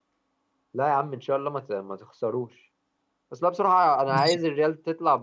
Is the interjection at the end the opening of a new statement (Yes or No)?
No